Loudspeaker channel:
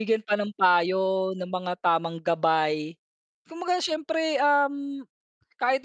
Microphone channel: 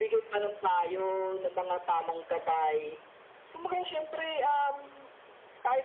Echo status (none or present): present